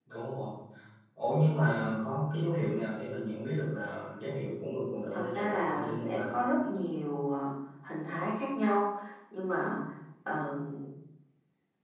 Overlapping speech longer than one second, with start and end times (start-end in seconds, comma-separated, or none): 5.1-6.3